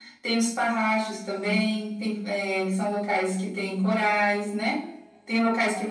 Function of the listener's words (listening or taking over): listening